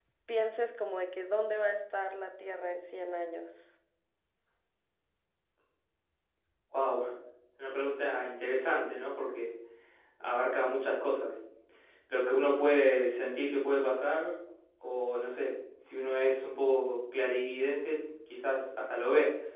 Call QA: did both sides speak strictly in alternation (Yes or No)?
Yes